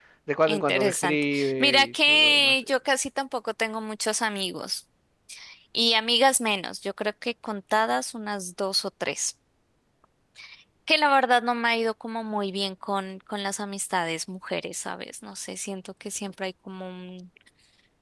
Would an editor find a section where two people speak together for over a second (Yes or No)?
Yes